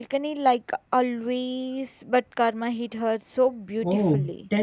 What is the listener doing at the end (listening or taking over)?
taking over